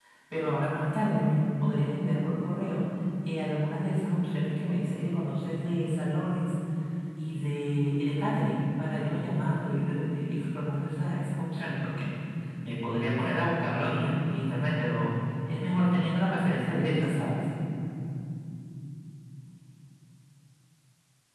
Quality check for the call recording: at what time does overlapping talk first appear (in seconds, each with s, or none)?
none